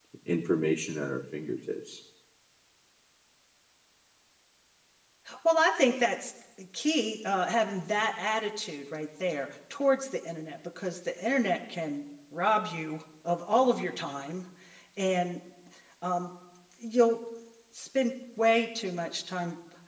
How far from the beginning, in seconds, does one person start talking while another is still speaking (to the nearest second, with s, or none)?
none